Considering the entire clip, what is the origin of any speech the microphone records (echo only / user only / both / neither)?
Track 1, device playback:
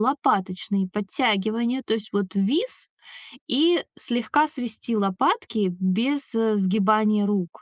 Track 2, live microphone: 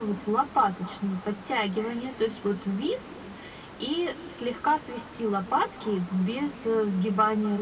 echo only